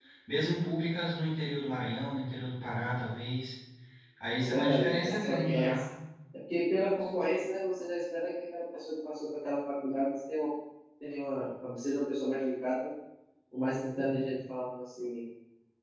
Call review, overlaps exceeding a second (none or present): present